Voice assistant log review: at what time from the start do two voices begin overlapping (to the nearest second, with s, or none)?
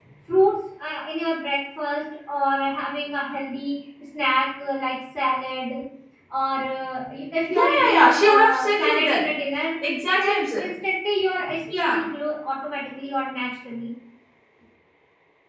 8 s